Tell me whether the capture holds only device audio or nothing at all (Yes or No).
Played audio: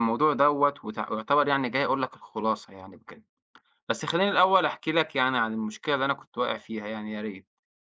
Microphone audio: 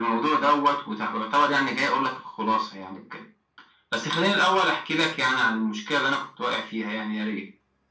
Yes